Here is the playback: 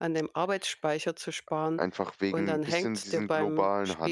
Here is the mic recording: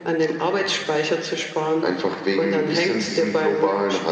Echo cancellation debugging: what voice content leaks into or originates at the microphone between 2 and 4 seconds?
echo only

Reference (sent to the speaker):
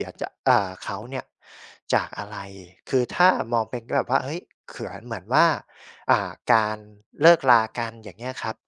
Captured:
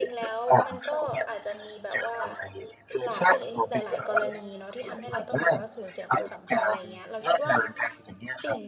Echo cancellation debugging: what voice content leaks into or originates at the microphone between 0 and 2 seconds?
both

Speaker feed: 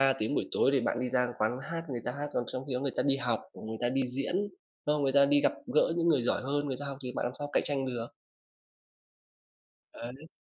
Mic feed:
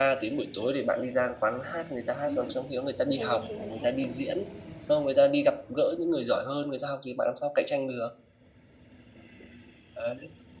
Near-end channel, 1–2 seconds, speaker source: echo only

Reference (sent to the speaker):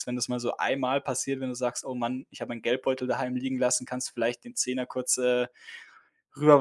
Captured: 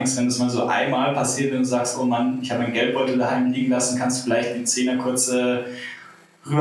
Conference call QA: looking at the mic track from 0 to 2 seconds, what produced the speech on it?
echo only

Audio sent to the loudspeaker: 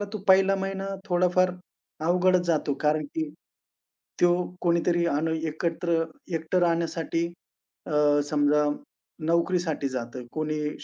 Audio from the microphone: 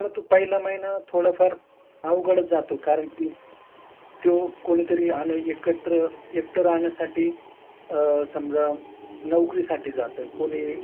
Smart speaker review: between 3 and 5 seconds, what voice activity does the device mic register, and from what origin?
echo only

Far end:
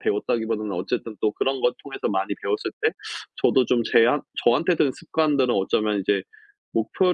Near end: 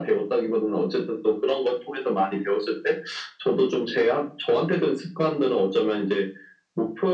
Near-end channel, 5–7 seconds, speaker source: echo only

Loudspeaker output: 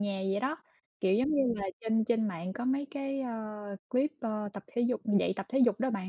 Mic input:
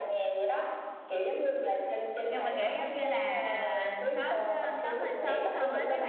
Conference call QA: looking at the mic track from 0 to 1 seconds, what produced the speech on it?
echo only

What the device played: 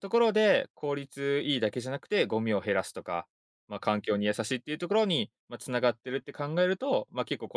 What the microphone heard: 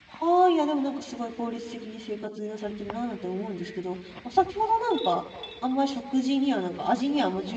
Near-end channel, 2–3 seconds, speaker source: user only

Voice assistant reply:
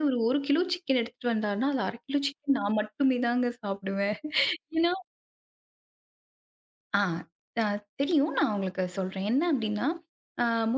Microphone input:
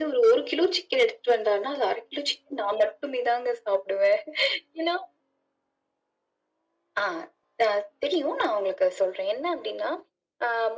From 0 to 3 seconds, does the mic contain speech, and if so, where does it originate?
echo only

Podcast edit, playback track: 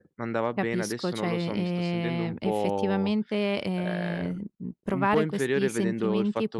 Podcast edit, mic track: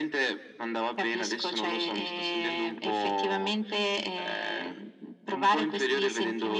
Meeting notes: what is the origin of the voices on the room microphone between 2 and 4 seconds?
echo only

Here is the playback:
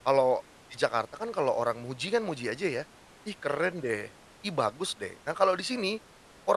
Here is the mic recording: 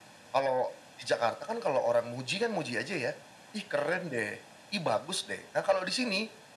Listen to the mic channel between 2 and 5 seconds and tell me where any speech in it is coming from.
echo only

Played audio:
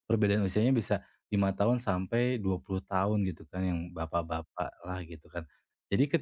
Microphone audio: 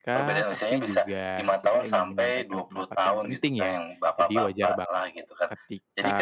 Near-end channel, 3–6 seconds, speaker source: both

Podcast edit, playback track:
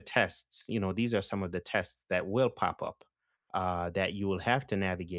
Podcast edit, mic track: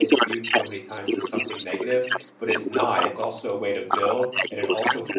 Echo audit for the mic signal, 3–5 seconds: both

